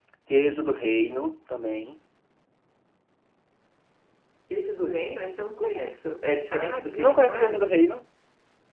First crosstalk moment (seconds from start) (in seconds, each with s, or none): 6.5 s